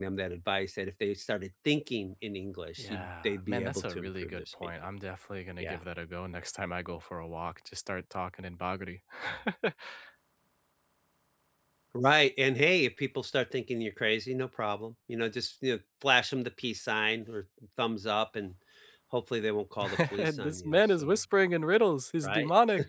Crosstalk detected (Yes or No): Yes